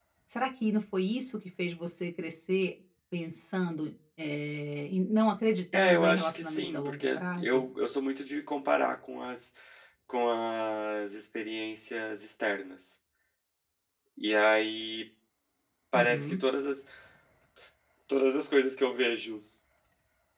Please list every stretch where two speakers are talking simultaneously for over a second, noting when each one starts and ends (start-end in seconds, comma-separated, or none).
5.7-7.6